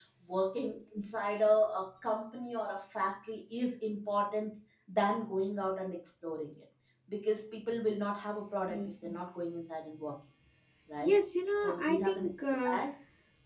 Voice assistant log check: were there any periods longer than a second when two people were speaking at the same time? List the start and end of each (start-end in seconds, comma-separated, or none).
11.6-12.8